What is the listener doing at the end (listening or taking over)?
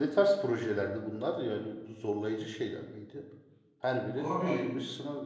taking over